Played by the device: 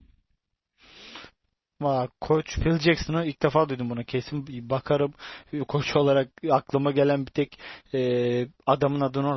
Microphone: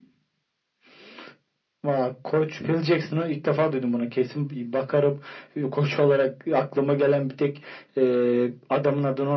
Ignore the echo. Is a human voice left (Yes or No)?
No